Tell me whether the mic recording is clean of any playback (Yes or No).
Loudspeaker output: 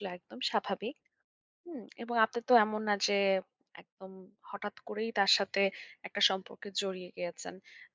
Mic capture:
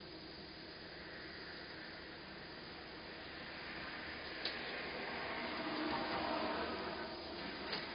Yes